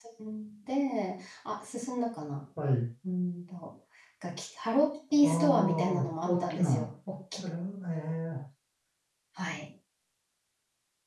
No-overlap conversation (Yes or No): No